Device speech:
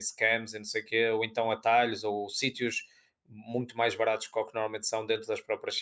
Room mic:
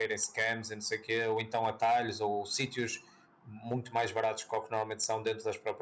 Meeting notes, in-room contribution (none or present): none